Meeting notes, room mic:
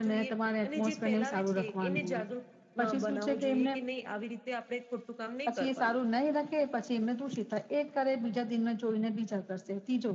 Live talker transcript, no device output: none

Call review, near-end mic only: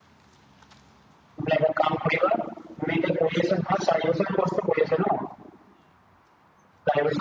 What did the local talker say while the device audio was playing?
none

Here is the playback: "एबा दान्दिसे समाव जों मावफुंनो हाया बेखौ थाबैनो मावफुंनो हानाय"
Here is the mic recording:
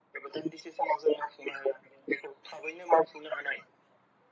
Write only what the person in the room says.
none

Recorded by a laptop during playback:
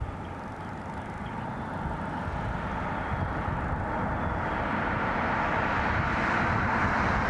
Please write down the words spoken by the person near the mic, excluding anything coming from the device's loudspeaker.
none

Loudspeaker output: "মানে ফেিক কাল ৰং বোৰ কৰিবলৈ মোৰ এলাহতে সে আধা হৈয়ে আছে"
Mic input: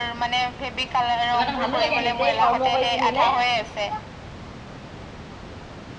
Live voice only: কিবা এটা ভালো লাগে নিজে কৰ্ম কৰি পিন্ধিলে,

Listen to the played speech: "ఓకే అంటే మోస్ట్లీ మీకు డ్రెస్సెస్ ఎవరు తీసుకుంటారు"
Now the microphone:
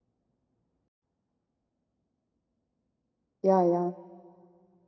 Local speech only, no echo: యా యా

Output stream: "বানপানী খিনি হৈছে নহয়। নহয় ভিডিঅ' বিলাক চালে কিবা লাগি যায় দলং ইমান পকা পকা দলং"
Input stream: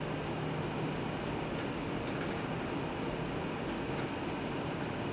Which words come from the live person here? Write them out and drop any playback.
none

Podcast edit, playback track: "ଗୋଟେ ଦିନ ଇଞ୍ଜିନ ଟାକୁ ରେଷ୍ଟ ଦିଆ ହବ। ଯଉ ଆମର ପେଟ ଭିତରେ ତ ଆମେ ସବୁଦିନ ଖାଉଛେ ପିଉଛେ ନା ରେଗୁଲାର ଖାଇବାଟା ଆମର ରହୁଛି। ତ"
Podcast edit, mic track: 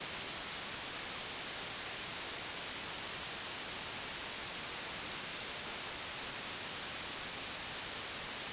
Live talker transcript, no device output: none

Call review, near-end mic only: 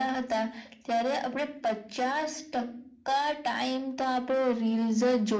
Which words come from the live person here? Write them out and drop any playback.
none

